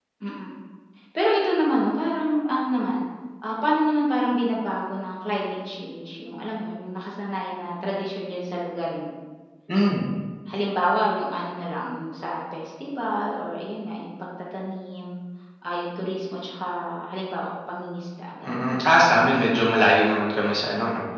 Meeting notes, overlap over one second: none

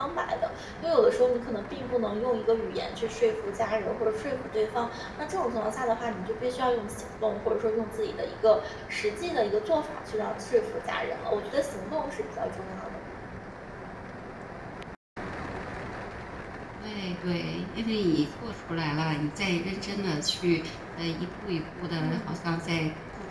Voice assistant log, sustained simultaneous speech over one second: none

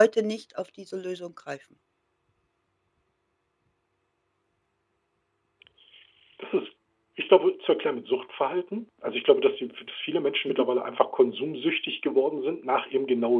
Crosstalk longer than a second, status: none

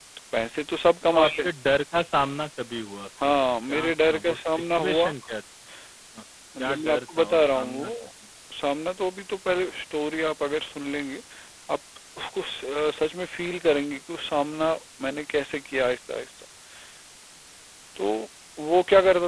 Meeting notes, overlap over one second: present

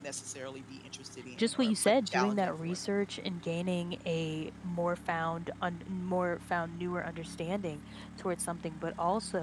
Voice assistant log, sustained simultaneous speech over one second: present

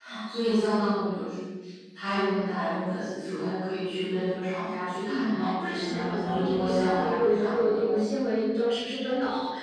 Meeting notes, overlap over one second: present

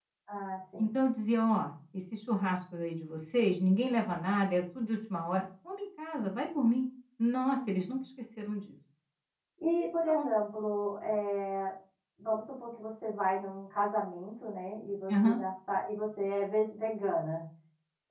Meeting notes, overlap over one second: none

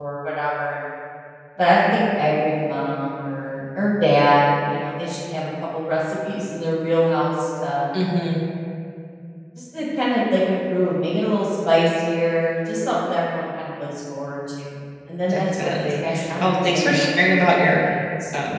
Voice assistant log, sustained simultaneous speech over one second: present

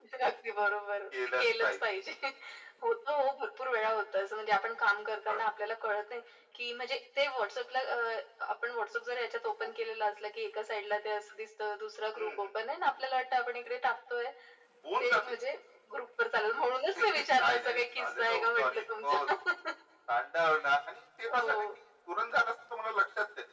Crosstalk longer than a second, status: present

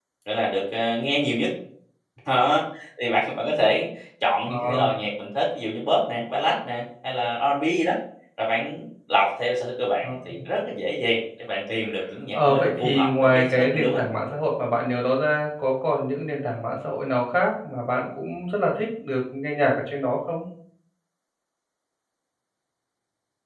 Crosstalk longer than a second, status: present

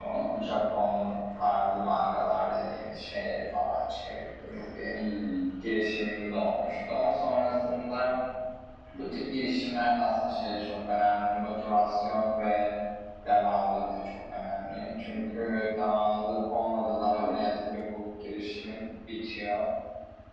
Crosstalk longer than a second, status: none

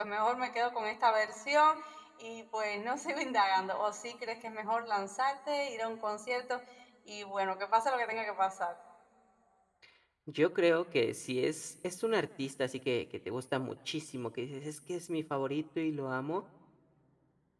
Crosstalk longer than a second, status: none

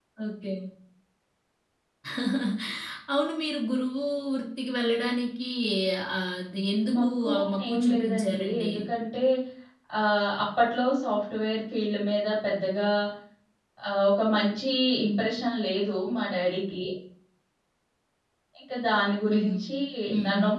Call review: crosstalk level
present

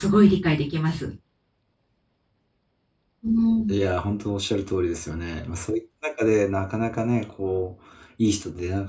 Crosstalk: none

